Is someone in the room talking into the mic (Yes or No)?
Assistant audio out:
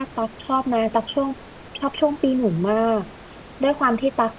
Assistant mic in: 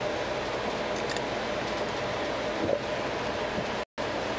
No